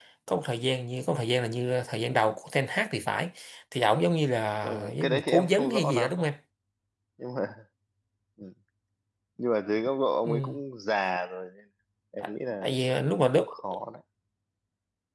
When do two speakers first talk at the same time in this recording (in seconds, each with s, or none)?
4.6 s